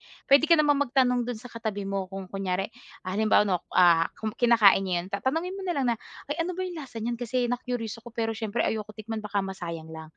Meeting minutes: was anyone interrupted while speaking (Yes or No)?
No